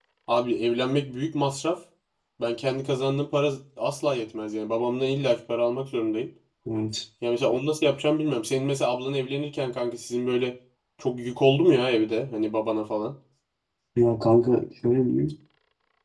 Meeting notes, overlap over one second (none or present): none